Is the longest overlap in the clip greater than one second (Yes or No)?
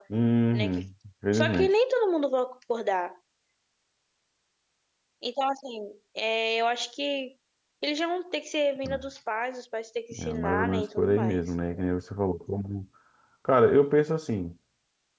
Yes